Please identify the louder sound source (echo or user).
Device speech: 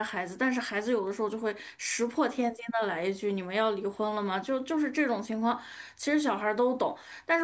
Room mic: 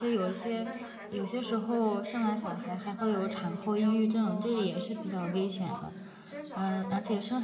user